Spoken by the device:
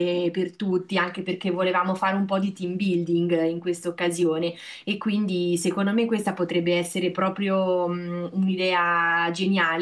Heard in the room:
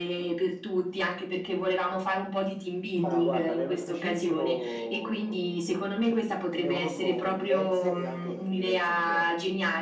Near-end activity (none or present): present